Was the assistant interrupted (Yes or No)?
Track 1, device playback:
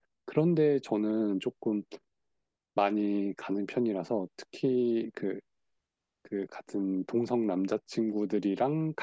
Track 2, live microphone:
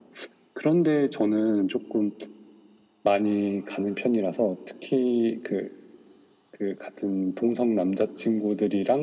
No